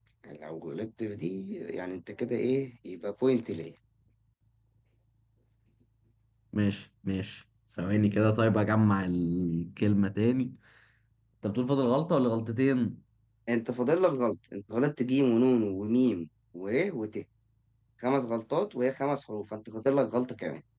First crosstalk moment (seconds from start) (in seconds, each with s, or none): none